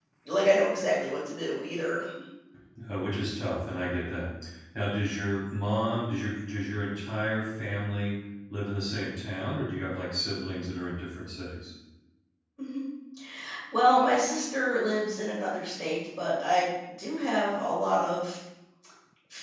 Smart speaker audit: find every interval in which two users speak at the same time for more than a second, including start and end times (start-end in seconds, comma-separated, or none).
none